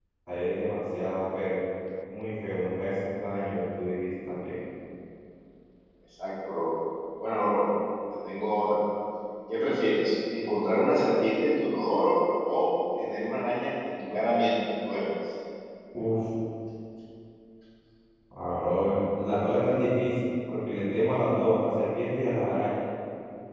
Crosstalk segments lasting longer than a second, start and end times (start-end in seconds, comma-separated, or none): none